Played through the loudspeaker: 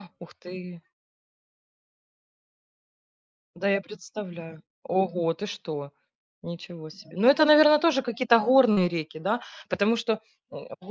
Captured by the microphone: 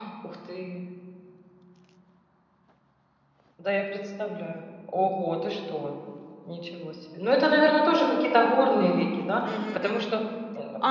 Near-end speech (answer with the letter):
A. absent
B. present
B